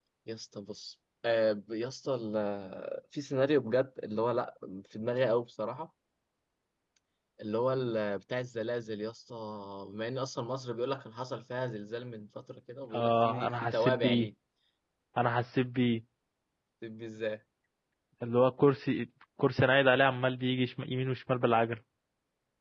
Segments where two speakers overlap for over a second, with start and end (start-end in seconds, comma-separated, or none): 12.9-14.3